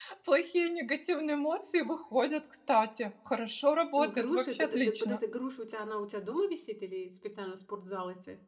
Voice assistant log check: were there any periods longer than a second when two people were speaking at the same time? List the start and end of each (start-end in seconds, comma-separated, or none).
4.0-5.2